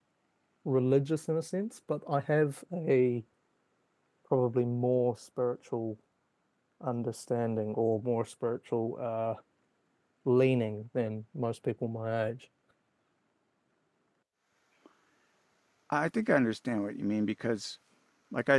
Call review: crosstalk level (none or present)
none